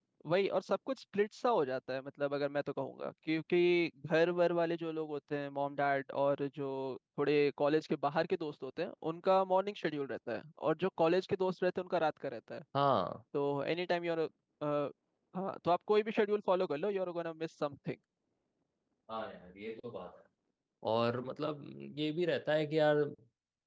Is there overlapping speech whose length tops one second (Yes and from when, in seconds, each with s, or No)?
No